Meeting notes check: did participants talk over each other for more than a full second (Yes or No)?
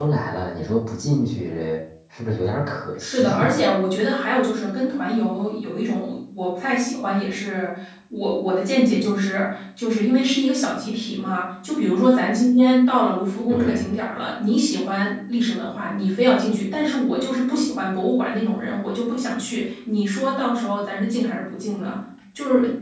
No